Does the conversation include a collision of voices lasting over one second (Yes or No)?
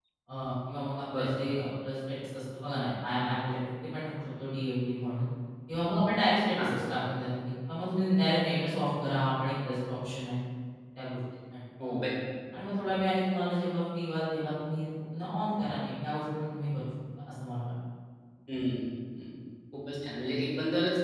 No